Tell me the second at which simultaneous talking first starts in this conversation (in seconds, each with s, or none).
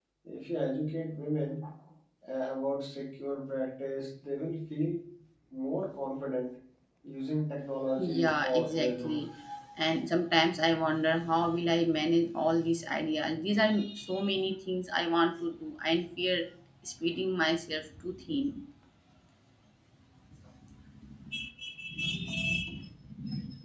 8.0 s